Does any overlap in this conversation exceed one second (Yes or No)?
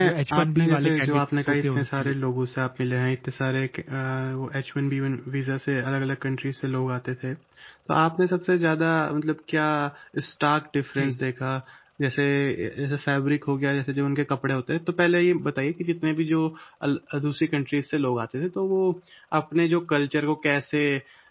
Yes